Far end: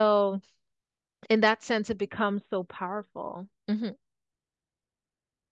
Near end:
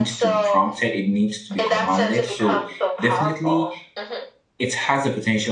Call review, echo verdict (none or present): present